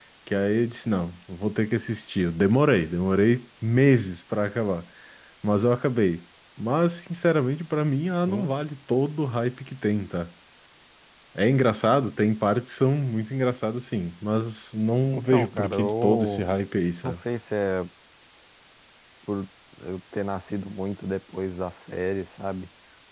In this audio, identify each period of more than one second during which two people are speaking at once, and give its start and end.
15.2-16.4

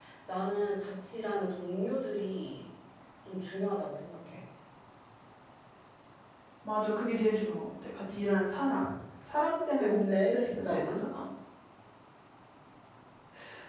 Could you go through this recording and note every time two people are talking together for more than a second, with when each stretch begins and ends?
9.8-11.0

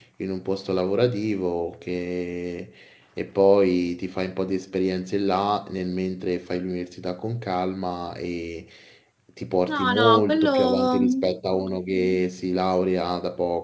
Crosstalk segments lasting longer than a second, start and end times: 9.7-11.2

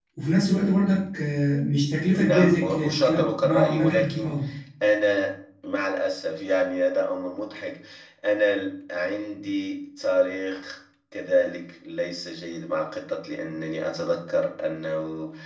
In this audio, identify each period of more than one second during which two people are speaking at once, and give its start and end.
2.1-4.3

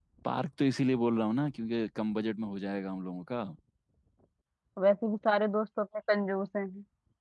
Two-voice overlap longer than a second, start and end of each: none

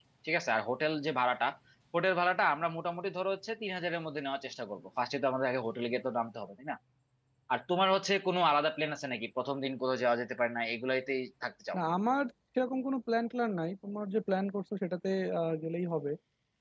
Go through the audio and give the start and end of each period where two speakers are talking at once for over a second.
none

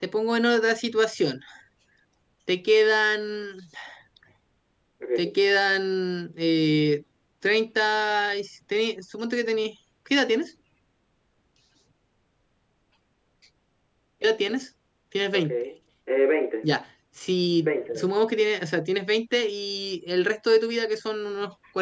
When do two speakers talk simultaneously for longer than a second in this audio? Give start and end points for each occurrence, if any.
none

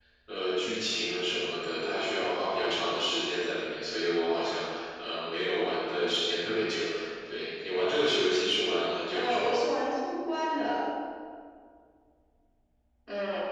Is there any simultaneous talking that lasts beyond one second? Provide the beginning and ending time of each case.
none

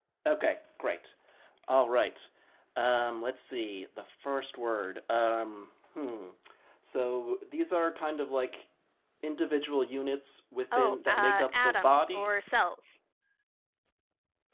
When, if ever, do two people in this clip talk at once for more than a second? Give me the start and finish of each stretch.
10.7-12.3

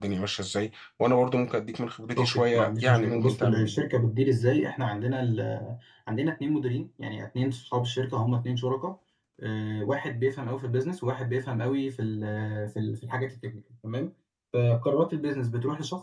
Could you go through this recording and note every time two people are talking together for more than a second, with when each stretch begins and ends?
2.2-3.8

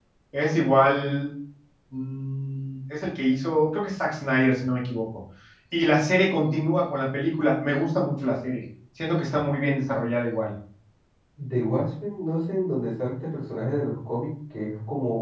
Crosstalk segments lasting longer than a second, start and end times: none

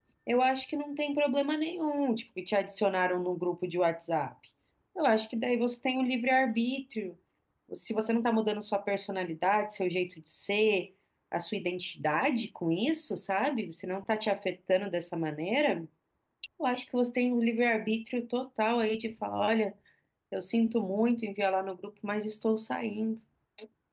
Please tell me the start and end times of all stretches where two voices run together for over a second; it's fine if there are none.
none

